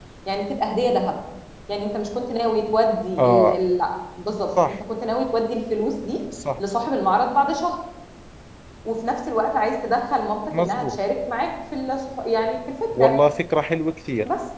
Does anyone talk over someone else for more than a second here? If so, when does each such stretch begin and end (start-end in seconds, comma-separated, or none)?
none